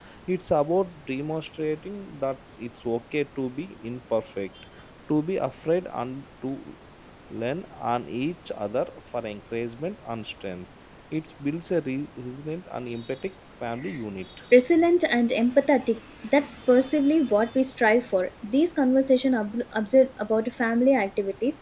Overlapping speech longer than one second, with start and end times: none

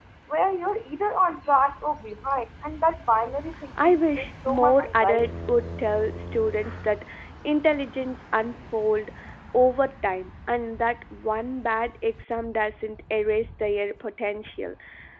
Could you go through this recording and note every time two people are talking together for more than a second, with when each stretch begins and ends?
3.8-5.3

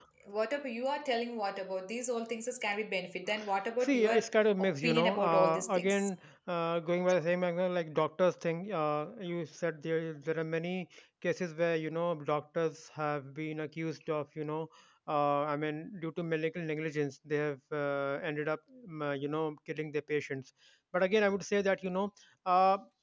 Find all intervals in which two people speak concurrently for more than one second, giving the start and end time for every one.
4.6-6.1

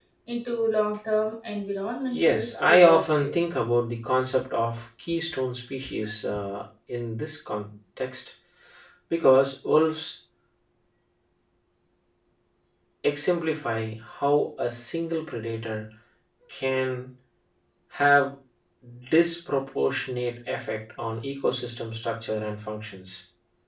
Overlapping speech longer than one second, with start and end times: 2.1-3.5

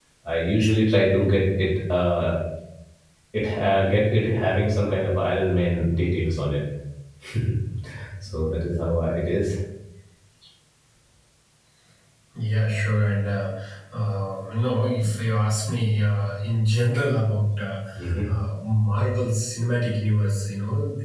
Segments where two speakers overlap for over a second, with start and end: none

